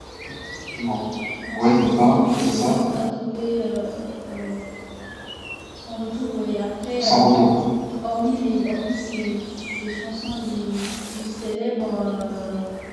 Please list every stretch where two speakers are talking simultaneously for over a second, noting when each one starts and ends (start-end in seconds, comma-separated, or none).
1.6-2.8